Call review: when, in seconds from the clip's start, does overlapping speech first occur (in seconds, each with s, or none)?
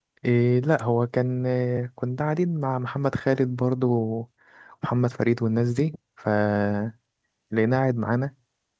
none